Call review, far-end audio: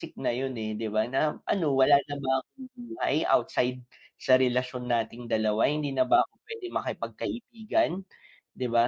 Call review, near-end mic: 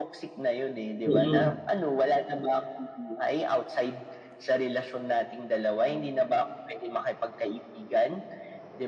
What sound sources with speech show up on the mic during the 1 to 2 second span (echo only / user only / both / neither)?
both